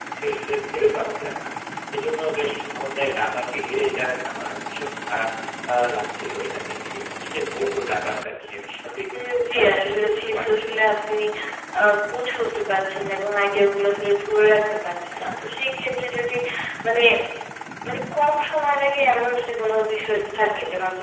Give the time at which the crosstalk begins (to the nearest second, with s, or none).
10 s